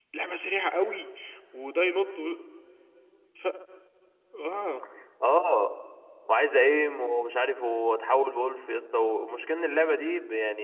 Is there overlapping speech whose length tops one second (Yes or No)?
No